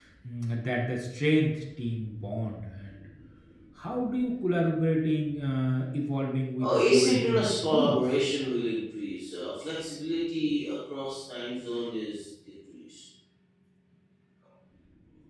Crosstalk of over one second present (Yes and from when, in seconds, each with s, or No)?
Yes, from 6.6 s